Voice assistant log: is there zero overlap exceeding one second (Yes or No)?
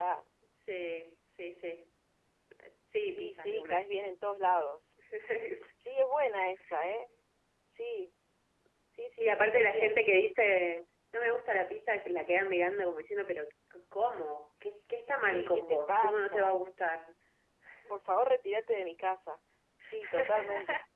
No